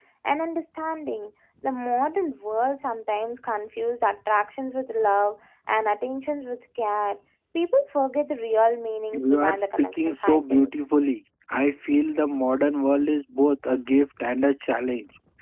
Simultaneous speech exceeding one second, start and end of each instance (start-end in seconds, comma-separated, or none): 9.1-10.7